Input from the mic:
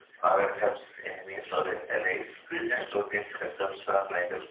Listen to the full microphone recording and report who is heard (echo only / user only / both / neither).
both